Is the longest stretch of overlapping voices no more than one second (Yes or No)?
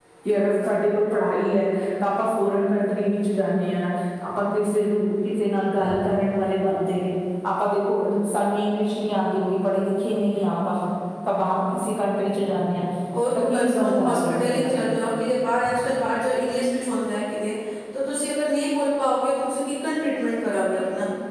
No